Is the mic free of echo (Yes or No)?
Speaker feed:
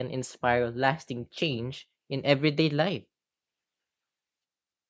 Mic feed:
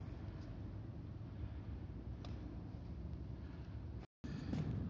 Yes